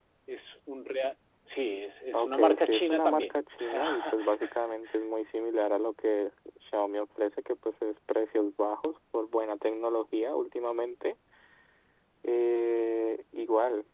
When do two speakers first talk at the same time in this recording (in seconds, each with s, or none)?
2.1 s